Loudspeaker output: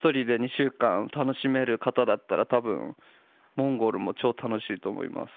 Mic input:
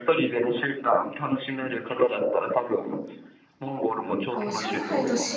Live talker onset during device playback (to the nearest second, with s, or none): 4 s